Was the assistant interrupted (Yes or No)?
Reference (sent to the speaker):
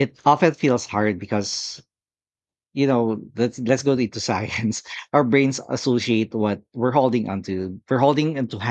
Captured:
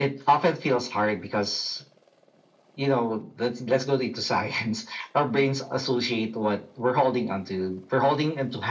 No